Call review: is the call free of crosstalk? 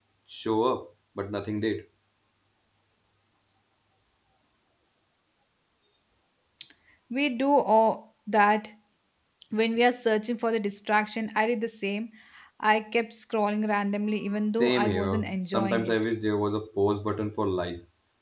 No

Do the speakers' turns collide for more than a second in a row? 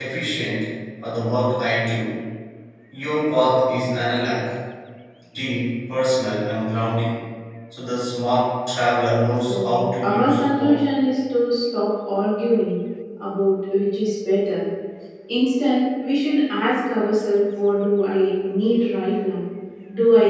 Yes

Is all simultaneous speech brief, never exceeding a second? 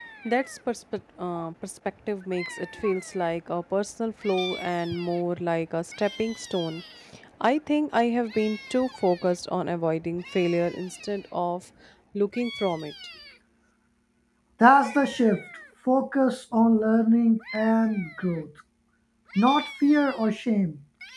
Yes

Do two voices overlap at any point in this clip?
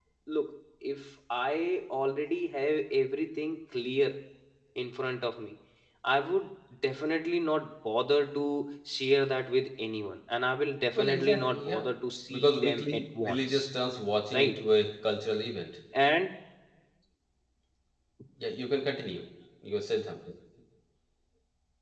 Yes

